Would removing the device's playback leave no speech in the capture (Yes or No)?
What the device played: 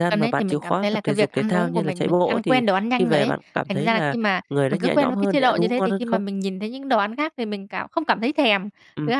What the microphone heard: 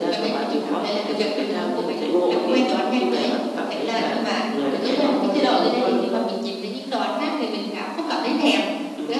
Yes